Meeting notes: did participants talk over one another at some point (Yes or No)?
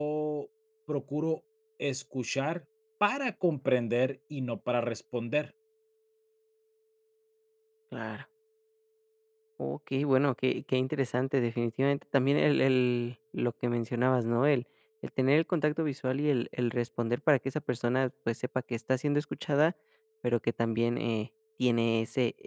No